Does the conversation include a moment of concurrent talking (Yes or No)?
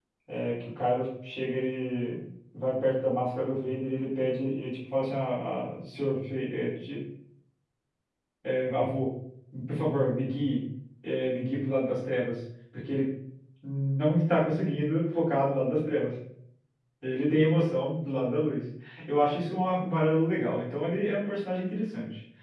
No